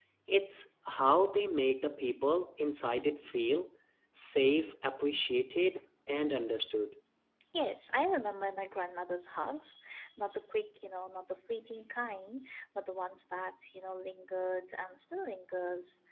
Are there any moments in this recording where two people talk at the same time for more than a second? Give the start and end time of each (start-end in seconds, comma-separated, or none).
none